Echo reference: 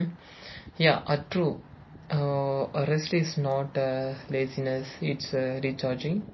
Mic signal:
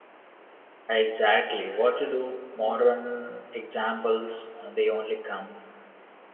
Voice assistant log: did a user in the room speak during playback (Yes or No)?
Yes